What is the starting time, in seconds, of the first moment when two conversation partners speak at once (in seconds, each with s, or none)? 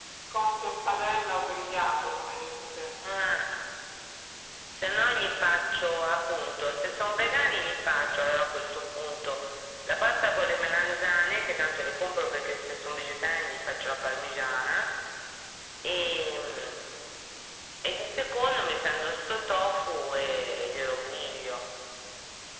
none